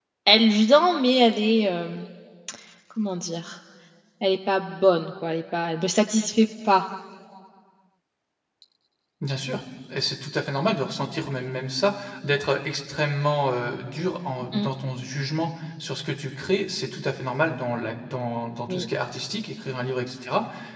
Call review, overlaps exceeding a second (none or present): none